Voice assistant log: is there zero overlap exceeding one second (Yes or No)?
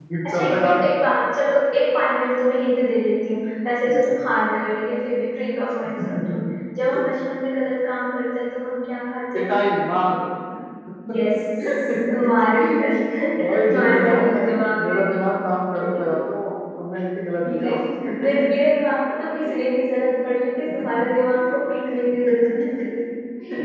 No